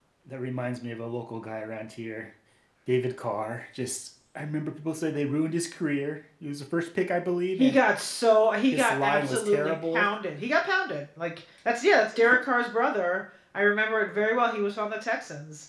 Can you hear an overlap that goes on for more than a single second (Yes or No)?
Yes